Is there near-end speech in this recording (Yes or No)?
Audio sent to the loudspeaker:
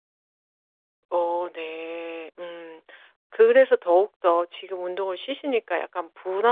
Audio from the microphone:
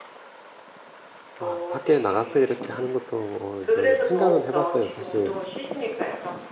Yes